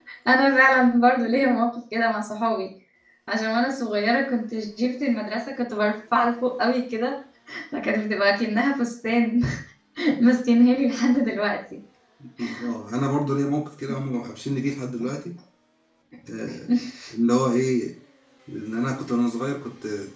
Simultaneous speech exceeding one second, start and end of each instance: none

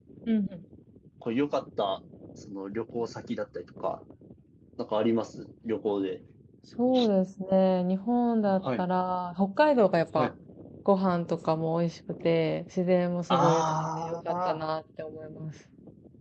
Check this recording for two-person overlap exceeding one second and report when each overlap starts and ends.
13.3-14.6

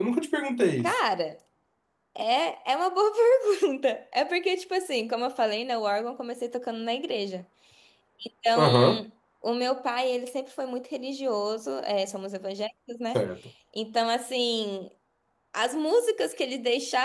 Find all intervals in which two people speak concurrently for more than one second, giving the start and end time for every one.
none

